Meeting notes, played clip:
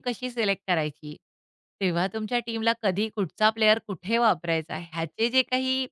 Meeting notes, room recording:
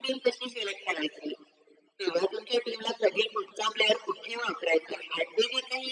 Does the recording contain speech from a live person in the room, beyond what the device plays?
No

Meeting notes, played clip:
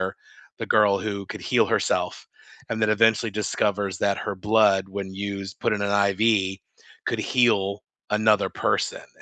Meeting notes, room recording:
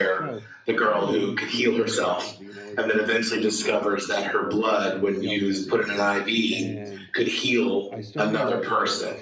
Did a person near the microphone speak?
Yes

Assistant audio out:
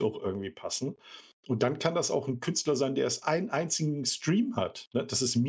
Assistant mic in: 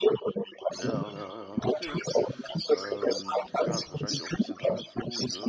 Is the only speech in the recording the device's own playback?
No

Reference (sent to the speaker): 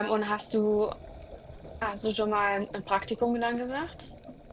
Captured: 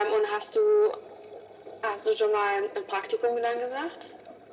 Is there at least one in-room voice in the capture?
No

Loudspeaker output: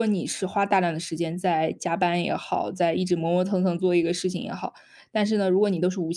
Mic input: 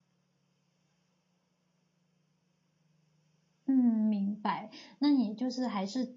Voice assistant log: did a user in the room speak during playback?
Yes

